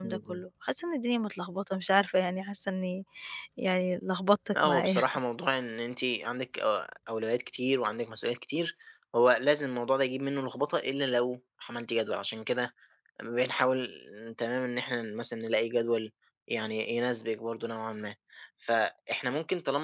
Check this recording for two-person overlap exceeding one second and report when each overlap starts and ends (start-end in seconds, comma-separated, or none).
none